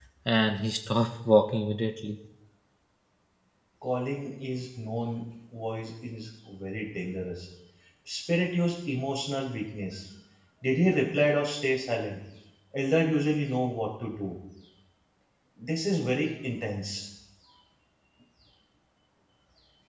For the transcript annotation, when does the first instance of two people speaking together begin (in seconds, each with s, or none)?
none